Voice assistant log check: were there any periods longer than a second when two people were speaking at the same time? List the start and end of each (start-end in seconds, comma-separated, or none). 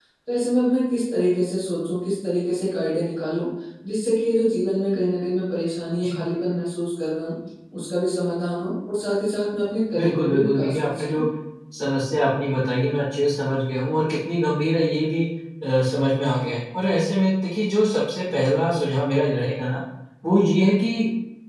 10.0-11.2